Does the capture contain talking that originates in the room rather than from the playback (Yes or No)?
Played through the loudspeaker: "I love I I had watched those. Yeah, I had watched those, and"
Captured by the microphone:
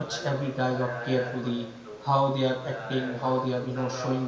Yes